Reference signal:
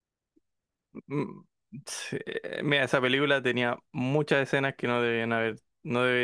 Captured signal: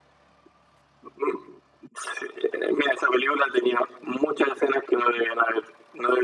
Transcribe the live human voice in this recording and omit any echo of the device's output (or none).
none